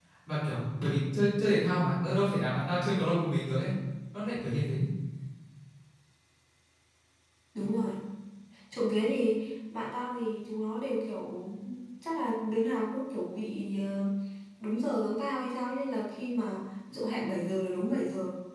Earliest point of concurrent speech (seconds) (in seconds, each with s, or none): none